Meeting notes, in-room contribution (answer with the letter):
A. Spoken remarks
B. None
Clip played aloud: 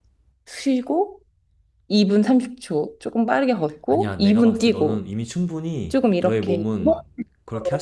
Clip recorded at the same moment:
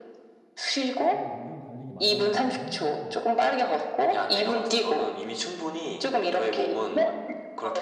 A